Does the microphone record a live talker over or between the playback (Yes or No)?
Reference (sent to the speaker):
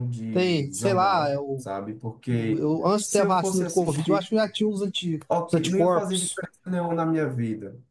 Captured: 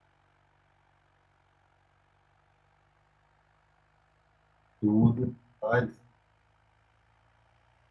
Yes